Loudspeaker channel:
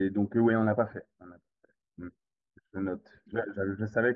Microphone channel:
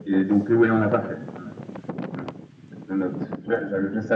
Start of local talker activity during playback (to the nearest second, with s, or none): none